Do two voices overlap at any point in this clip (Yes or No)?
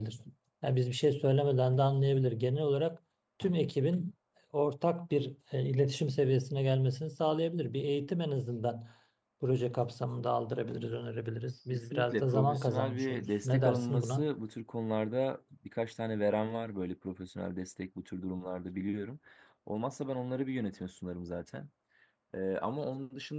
Yes